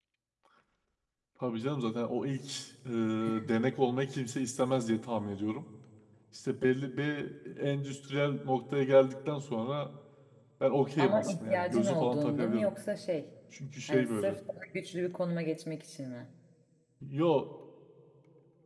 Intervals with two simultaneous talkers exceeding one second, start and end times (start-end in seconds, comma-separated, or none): 11.0-12.7